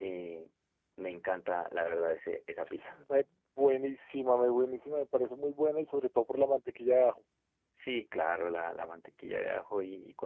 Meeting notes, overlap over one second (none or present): none